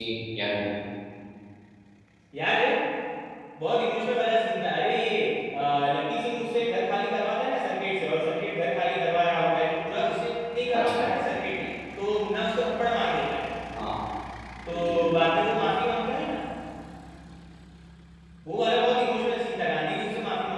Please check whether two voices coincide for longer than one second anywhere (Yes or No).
No